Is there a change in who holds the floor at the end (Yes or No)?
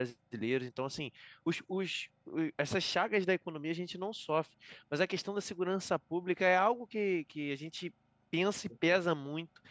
No